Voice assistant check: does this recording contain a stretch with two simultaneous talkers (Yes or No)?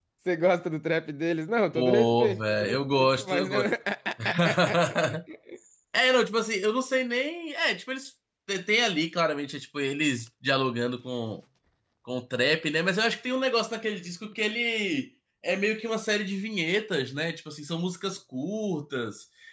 Yes